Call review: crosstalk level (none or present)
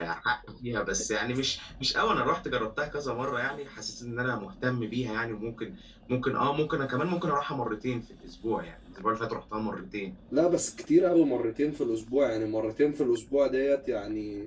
none